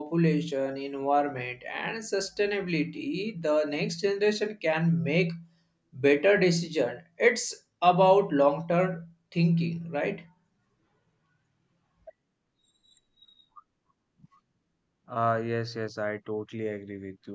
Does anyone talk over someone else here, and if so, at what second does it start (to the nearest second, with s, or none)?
none